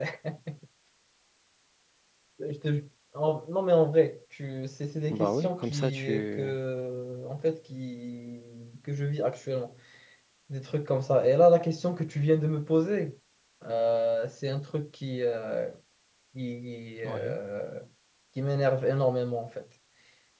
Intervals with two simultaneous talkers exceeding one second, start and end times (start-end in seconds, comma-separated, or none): 5.1-6.6